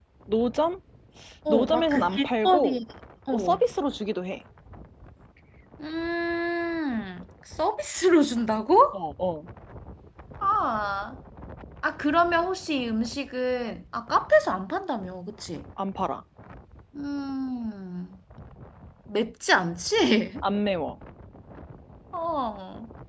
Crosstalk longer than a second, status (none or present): present